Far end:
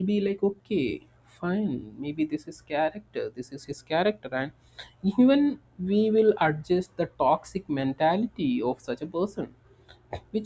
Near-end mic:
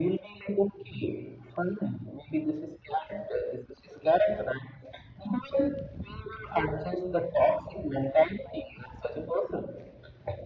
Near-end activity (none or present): none